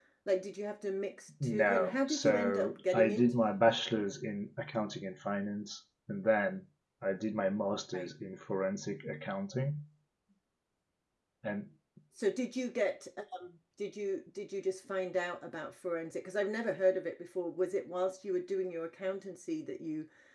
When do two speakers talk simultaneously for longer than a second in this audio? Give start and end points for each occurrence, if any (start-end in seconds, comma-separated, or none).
1.4-3.3